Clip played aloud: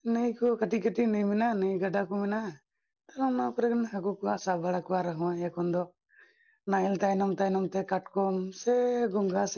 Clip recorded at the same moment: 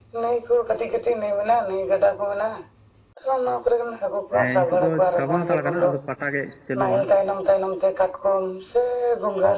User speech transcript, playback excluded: ᱦᱮᱸ ᱱᱤᱛᱚᱜ ᱫᱚ ᱪᱟᱵᱟ ᱦᱟᱛᱟᱲ ᱠᱟᱱᱟ ᱟᱫᱚ ᱯᱟᱴᱟ ᱜᱮ ᱪᱟᱹᱞᱩᱜᱼᱟ ᱦᱟᱸᱜ᱾

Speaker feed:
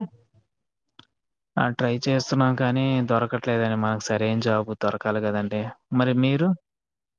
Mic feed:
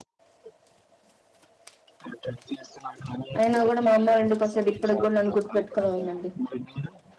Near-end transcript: అయినా గూడా మా అమ్మలుండి వస్తది ఇప్పుటికి గూడా నన్ను గుర్తు పెట్టుకునే ఉందండి.

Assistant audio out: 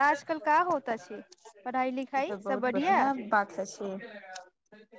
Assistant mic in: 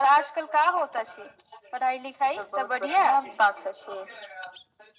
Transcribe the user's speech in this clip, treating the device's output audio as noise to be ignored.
none

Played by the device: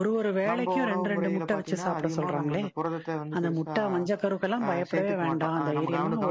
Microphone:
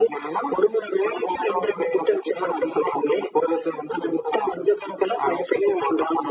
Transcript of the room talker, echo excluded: none

